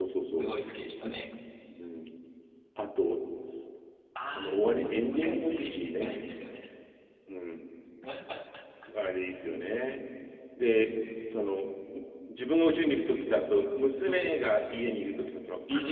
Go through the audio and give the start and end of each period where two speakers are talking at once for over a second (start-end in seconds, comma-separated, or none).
4.3-6.3